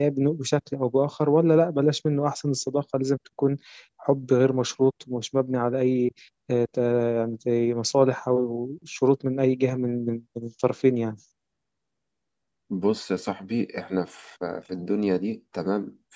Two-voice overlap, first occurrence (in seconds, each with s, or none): none